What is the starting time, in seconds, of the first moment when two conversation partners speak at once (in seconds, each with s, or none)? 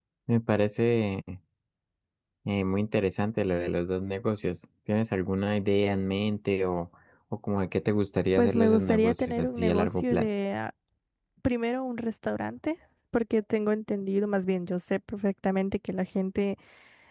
8.4 s